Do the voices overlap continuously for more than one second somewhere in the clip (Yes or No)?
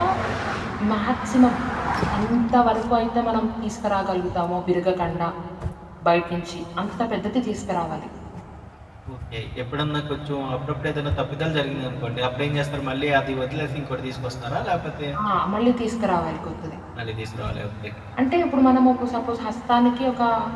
No